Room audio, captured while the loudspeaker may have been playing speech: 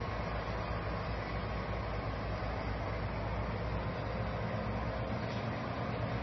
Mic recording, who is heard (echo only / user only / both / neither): neither